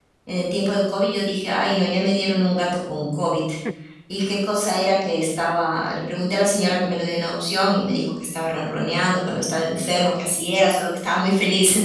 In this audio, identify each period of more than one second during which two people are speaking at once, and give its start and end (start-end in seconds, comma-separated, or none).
none